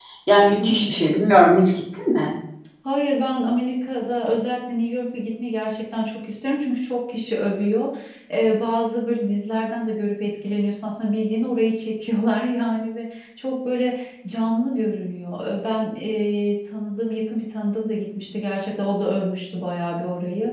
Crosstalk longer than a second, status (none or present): none